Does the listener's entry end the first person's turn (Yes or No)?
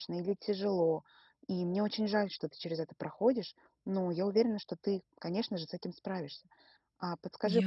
No